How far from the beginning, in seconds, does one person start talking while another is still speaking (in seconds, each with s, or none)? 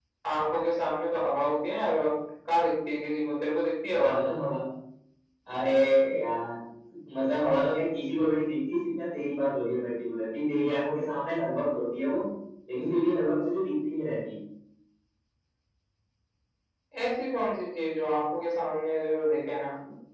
none